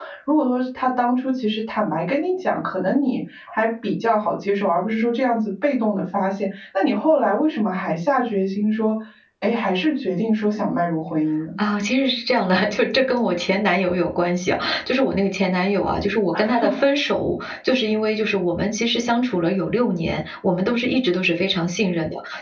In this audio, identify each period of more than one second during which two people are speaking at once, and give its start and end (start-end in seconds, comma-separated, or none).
none